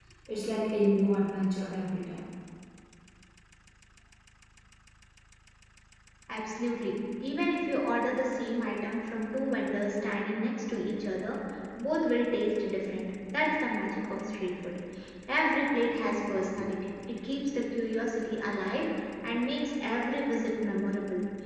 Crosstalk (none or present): none